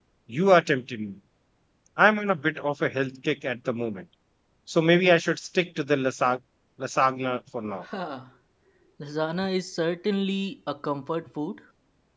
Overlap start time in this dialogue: none

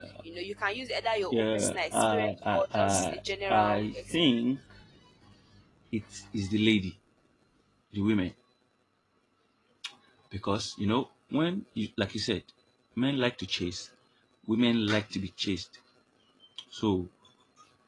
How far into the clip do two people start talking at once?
1 s

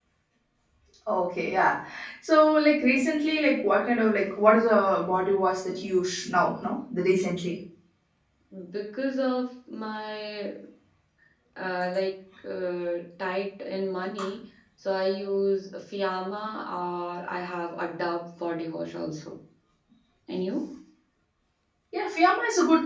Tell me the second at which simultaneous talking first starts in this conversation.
none

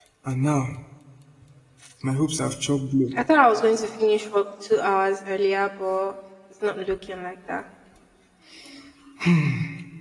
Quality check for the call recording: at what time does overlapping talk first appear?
none

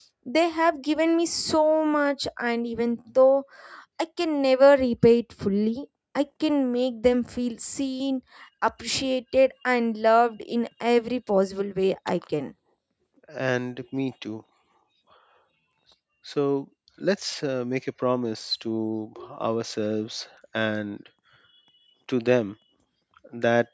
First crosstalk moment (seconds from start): none

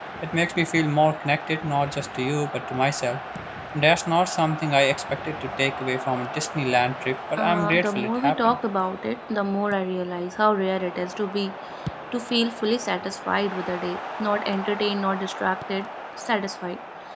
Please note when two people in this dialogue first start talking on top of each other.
7 s

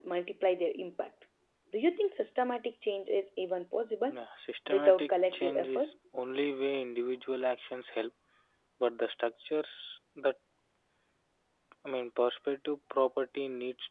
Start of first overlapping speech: 5 s

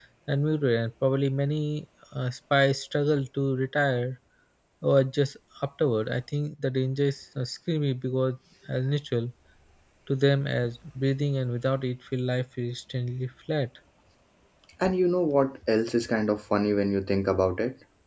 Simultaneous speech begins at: none

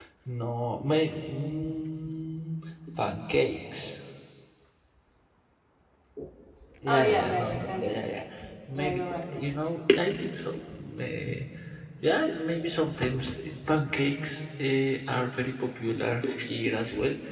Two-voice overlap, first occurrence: 7 s

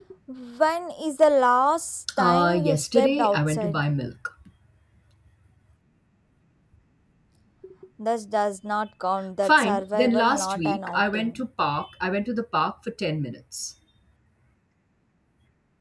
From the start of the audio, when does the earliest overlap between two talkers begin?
2 s

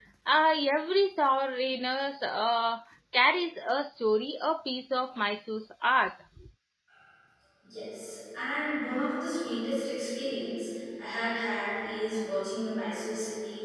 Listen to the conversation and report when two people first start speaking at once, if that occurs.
none

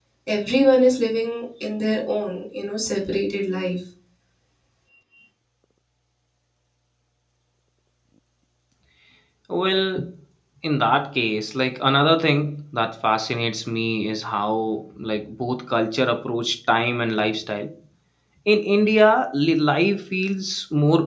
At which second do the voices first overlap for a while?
none

